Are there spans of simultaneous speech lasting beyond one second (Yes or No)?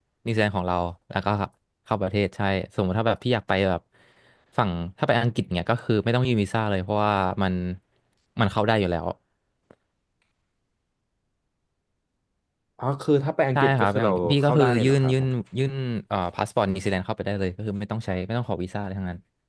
Yes